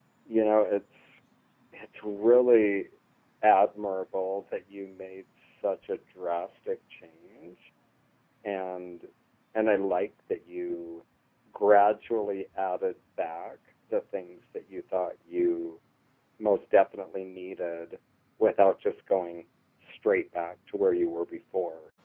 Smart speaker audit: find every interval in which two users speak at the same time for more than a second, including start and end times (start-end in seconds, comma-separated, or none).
none